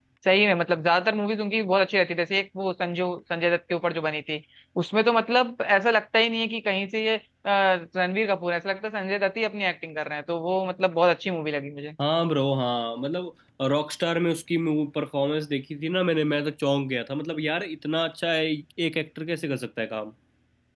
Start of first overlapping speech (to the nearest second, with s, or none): none